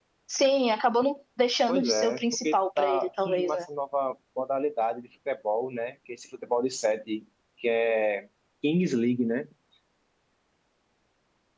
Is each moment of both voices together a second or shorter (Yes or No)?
No